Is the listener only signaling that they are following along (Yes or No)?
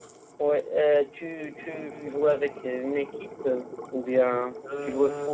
Yes